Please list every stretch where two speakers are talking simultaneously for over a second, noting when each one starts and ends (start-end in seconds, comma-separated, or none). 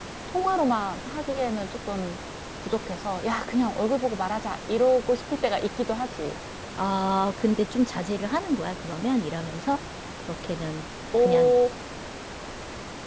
none